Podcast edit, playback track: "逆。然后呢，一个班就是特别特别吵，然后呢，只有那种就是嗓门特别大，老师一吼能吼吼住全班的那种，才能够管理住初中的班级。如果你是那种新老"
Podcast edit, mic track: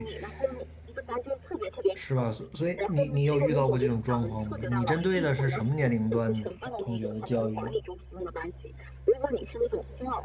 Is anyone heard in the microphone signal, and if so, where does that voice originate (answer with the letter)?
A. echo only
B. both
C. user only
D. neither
B